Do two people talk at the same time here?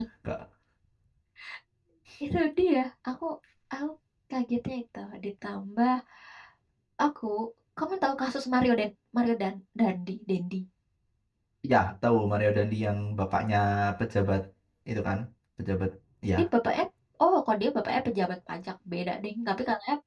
No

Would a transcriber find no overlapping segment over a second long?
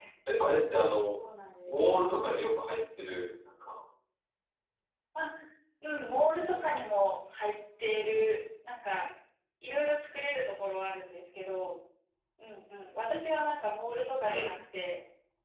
Yes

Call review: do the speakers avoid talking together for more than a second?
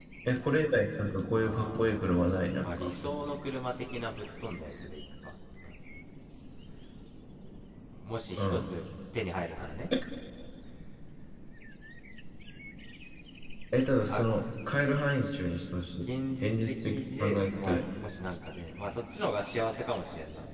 No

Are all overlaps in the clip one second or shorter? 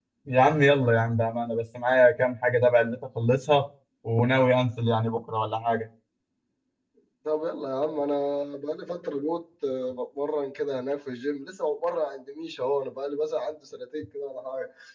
Yes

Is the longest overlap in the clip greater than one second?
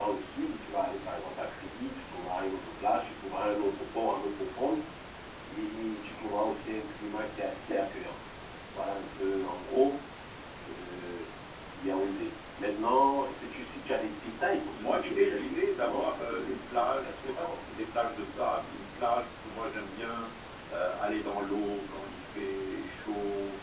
Yes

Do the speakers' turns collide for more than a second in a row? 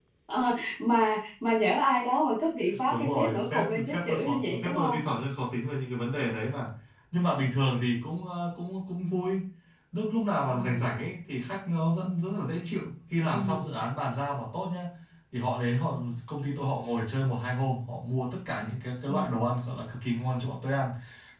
Yes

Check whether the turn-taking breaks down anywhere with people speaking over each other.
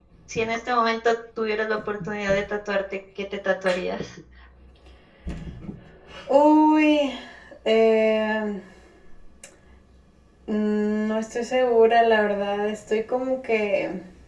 No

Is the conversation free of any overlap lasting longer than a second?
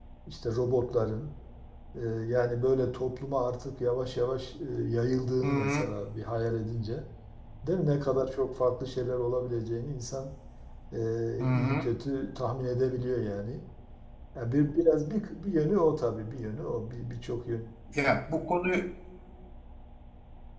Yes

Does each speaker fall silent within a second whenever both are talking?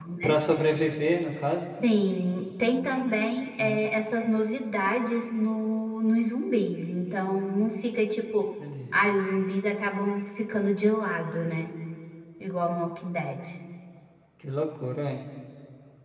Yes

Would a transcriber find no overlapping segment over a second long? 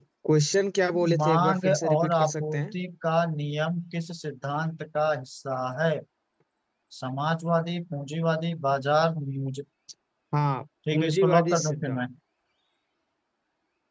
No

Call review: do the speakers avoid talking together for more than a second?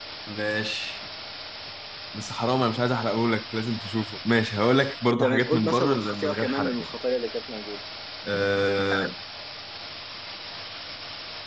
No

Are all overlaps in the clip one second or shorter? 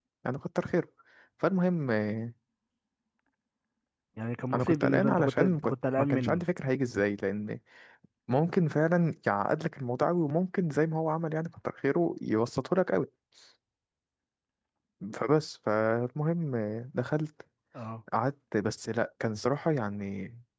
No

